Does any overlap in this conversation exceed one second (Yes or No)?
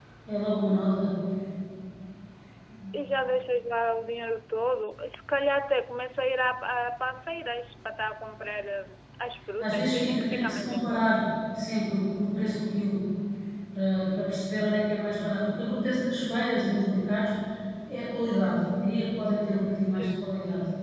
Yes